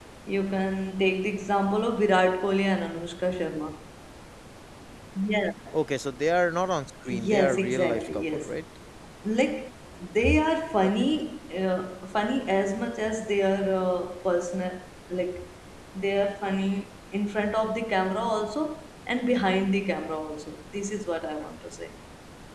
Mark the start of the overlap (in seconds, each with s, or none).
7.1 s